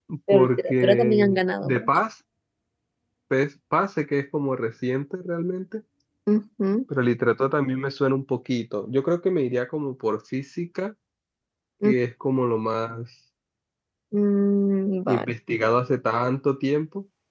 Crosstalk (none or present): present